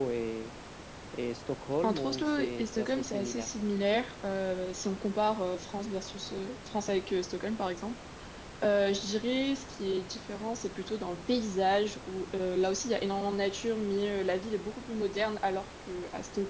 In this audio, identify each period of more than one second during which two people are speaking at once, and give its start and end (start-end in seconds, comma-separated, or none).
1.8-3.5